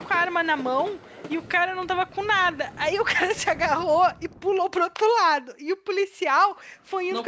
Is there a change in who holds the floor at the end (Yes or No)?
No